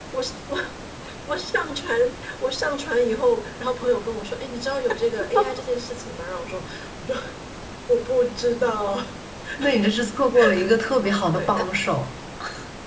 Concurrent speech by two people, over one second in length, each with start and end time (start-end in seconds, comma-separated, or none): none